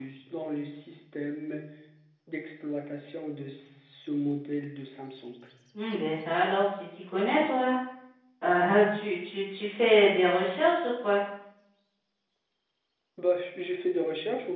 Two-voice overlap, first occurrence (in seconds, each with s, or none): none